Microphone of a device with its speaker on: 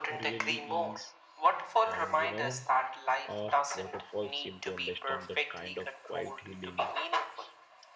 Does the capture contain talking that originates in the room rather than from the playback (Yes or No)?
Yes